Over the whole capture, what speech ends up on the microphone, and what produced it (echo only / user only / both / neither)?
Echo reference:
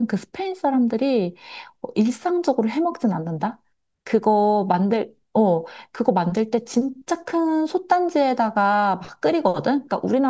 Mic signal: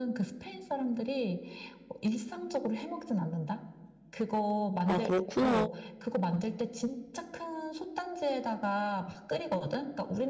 both